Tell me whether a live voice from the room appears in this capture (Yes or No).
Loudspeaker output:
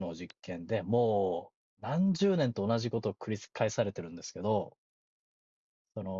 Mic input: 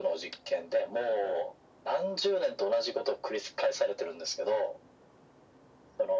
No